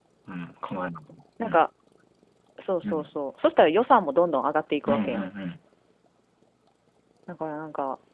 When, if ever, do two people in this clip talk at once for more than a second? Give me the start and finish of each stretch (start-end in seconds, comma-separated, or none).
none